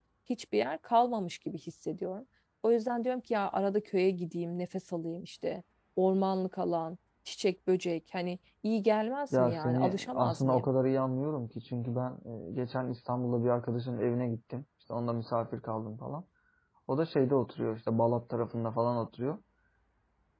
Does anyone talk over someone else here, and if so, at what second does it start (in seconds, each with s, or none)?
9.3 s